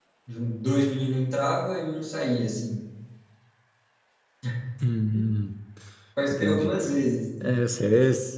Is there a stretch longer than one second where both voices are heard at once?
No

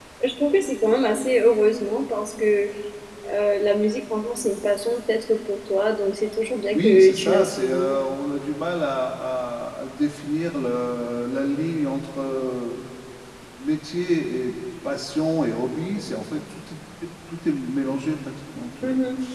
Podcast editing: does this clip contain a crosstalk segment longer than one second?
Yes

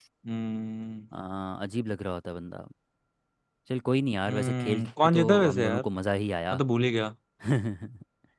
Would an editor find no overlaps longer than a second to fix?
No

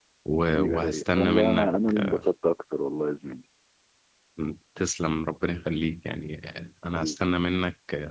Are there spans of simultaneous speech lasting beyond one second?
Yes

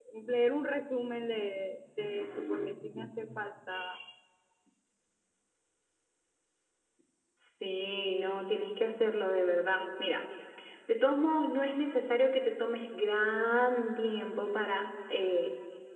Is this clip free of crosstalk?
Yes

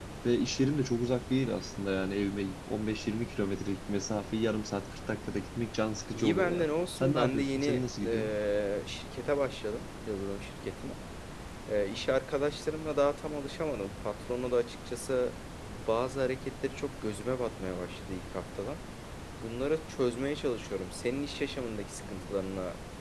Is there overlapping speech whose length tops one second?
Yes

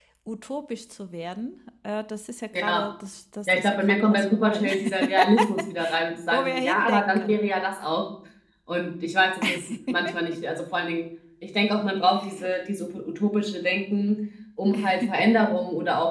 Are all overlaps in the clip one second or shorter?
No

